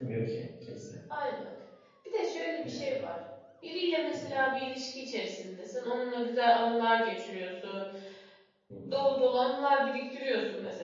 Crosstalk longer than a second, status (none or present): none